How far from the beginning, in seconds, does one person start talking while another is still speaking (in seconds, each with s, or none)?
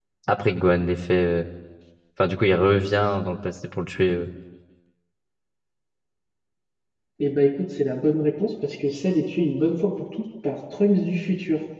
none